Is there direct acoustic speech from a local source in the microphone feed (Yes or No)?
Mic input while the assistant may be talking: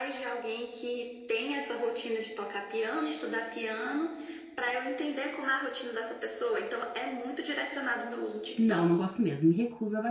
Yes